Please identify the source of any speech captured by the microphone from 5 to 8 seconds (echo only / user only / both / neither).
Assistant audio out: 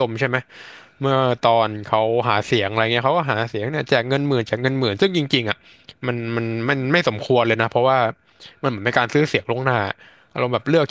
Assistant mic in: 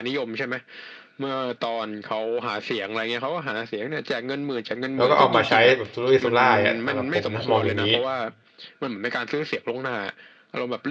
both